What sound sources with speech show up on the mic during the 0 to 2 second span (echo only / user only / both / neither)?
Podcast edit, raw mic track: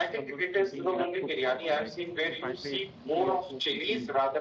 both